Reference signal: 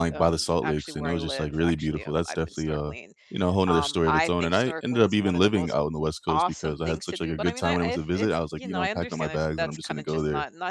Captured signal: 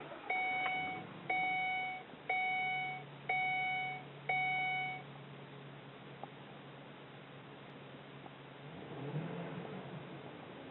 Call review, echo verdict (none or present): none